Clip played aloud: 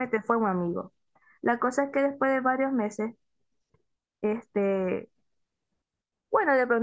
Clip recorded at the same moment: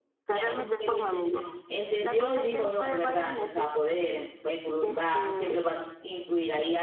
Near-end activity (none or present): present